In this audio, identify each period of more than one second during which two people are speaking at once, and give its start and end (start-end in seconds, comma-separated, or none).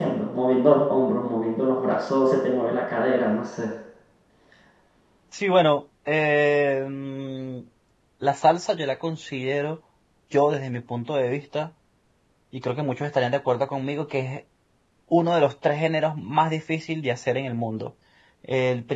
none